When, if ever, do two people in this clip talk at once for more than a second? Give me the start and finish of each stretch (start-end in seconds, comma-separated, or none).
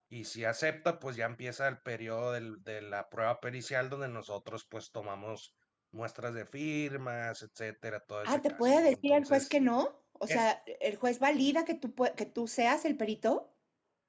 8.2-9.5